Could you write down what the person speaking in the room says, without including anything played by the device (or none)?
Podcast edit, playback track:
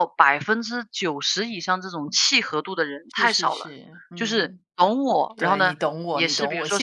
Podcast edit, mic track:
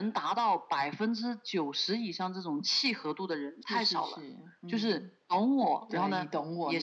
none